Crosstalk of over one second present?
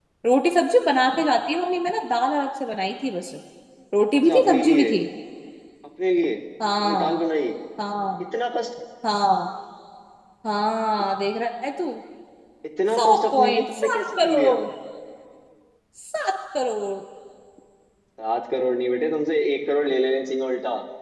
Yes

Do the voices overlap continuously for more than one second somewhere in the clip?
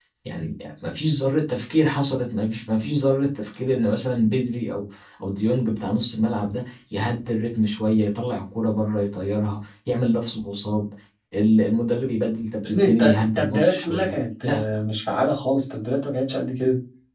Yes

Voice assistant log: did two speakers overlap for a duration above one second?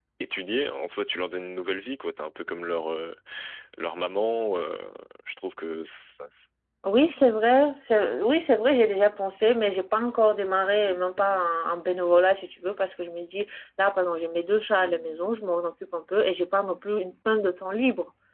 No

